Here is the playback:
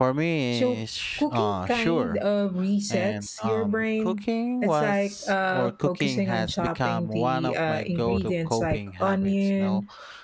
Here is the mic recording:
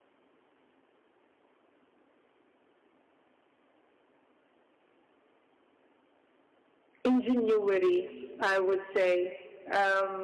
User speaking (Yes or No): Yes